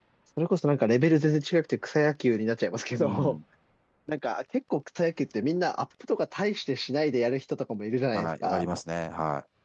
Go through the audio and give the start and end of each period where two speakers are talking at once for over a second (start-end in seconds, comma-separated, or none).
none